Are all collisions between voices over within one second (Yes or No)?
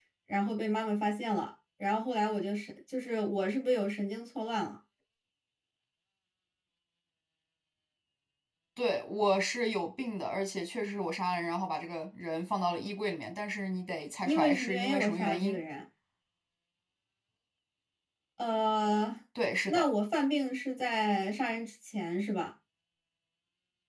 No